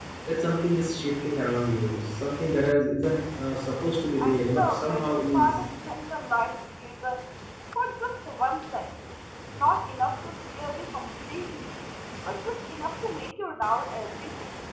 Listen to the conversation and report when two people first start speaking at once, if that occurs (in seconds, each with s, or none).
4.2 s